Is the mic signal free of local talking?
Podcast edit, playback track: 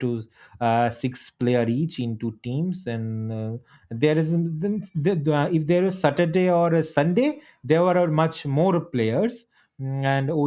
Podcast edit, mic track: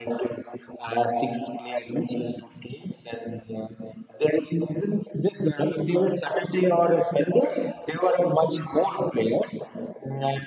Yes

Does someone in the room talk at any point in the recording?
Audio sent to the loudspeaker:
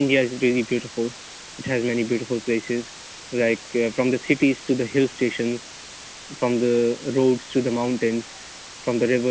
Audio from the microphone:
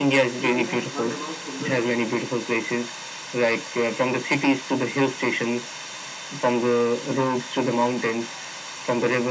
Yes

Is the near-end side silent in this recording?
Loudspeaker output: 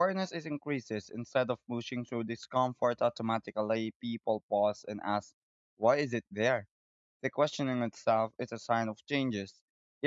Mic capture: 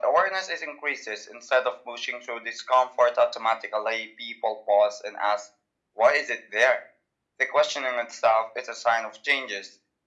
Yes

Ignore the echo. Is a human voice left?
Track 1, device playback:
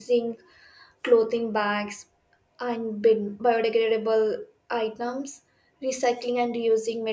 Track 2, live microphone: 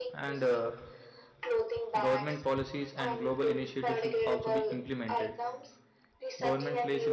Yes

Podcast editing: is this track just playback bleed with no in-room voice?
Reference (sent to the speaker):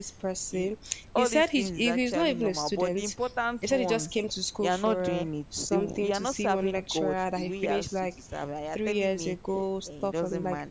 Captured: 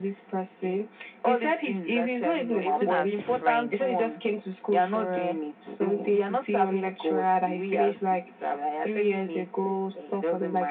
No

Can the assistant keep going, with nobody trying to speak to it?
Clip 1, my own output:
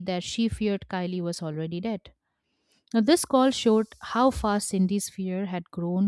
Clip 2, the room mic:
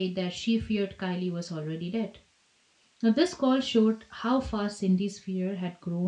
Yes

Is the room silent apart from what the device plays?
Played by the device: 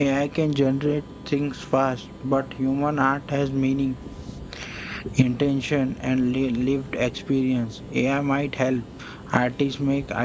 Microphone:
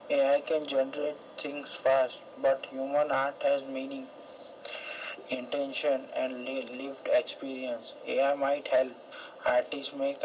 Yes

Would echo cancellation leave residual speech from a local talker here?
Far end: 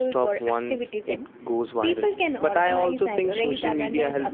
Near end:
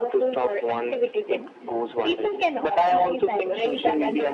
No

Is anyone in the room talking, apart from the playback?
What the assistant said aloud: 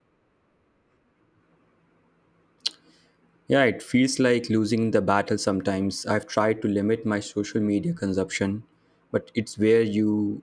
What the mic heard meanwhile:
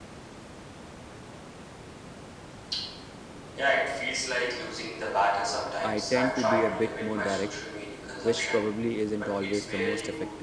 Yes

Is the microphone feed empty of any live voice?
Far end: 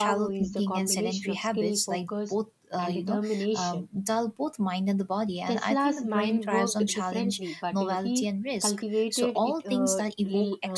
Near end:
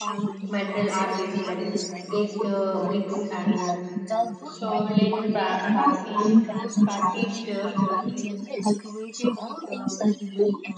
No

